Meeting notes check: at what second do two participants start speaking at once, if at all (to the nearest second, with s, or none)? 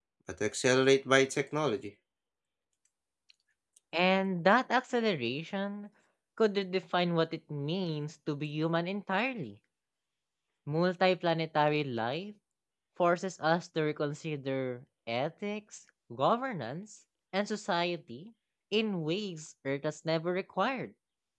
none